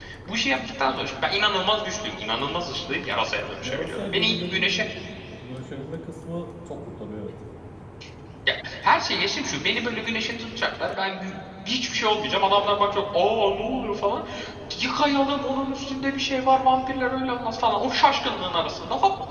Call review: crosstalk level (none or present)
present